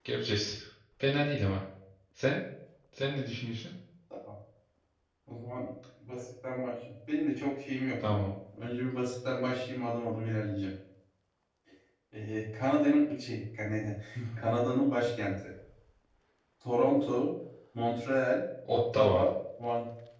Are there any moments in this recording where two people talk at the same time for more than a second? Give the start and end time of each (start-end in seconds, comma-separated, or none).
none